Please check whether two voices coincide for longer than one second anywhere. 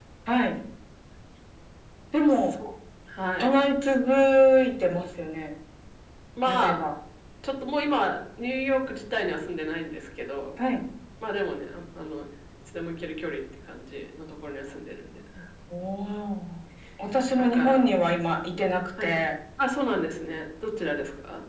No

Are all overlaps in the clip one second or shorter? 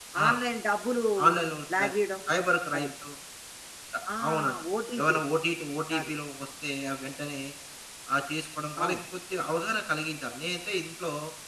Yes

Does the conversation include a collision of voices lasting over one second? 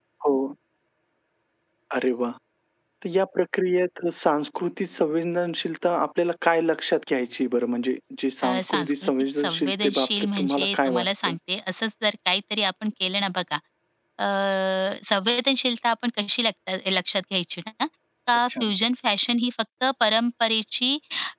Yes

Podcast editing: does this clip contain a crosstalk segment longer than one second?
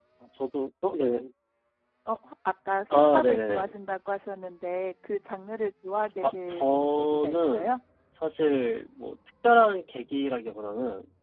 Yes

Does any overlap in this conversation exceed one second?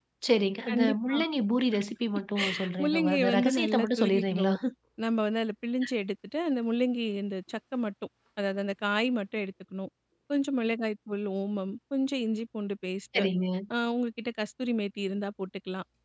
Yes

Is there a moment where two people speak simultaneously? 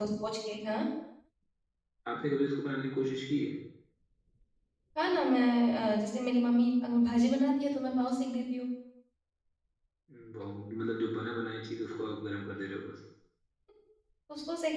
No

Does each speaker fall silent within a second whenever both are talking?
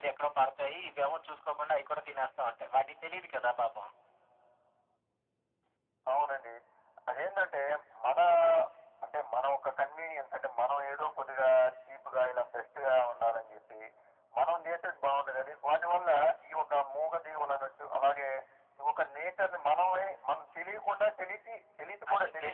Yes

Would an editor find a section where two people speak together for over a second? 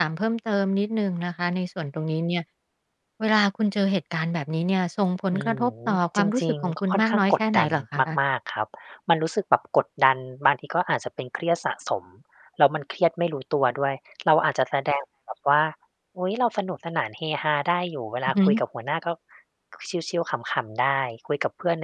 Yes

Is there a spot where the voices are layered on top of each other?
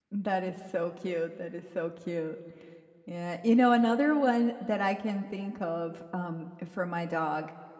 No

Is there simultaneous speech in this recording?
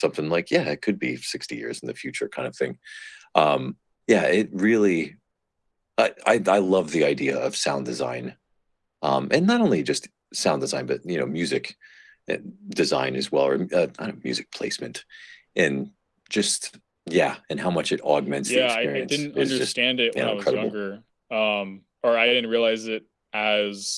Yes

